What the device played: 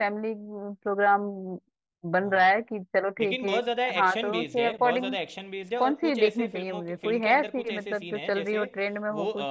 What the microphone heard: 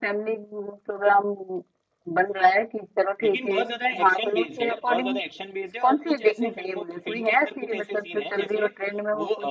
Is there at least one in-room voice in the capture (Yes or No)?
No